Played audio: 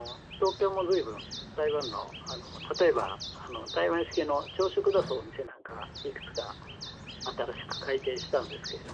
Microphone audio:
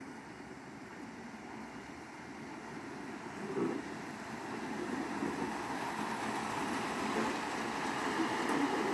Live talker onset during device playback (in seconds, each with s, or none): none